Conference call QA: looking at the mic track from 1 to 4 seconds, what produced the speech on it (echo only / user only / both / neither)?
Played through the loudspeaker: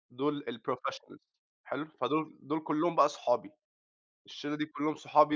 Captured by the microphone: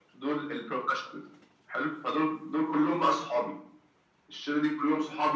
echo only